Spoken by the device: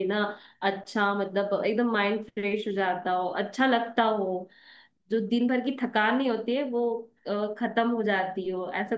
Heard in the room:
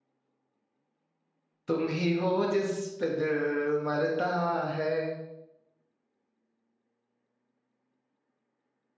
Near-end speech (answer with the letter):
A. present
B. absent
A